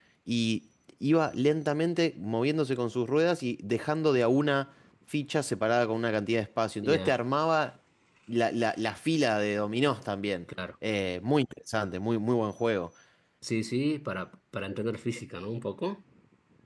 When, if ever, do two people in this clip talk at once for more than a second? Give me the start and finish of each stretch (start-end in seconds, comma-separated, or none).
none